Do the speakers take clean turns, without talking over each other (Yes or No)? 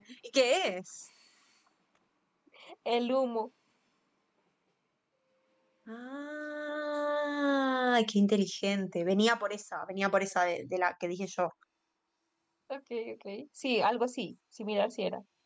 Yes